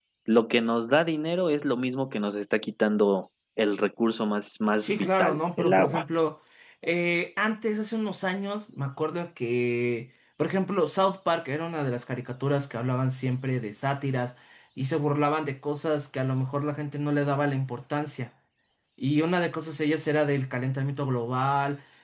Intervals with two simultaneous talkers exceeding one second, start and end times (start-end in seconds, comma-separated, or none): 4.8-6.0